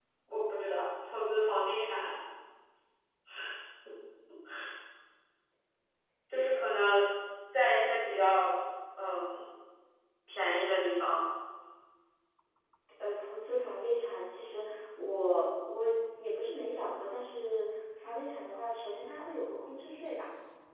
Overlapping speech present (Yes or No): No